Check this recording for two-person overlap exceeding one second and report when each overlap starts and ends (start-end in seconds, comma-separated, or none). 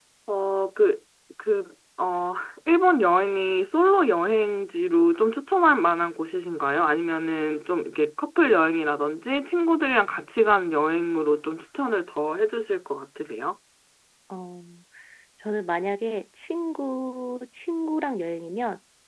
none